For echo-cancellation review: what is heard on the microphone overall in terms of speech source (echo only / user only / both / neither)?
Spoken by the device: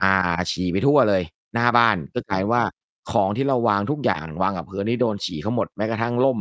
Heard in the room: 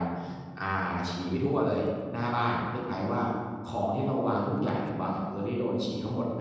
echo only